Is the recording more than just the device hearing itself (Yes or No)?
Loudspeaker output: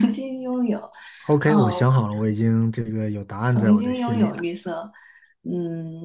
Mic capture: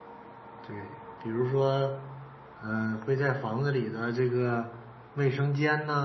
Yes